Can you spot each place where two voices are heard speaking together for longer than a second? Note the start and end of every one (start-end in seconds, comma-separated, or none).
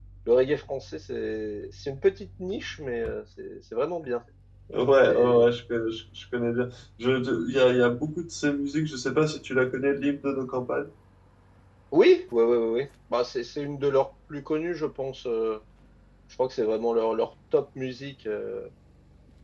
none